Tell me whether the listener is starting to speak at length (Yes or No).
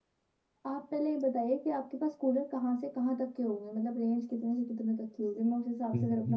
Yes